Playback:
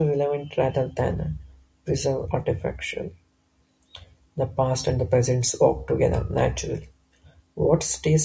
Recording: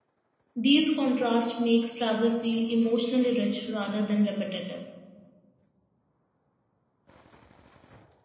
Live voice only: These contrasts make travel feel emotionally rich rather than repetitive.

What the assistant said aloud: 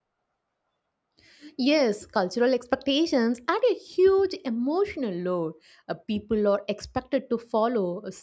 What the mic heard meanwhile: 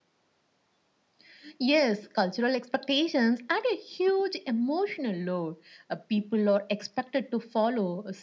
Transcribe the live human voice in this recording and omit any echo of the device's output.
none

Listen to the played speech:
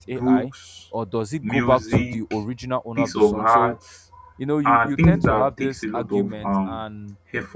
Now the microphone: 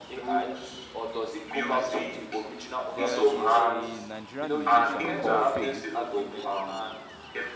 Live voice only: There is a Nigerian musician called Fave,

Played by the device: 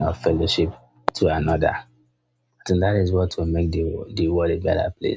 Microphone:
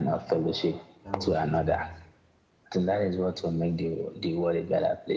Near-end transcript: That was kindness.

